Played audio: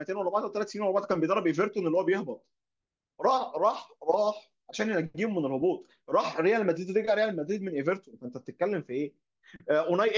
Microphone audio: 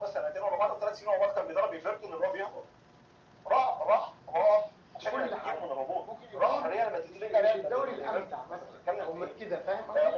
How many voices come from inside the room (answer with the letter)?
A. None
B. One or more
B